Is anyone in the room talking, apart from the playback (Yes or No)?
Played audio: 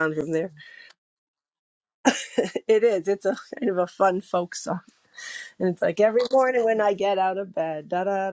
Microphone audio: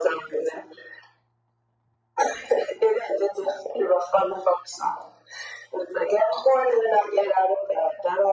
No